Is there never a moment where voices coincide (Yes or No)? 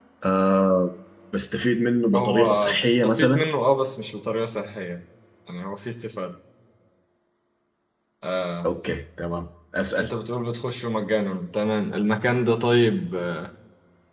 No